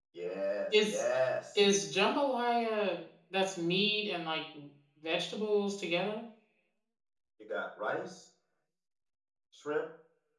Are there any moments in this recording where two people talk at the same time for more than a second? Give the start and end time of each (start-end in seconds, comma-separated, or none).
none